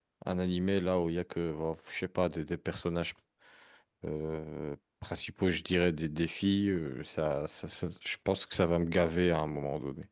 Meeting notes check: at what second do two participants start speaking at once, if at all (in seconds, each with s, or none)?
none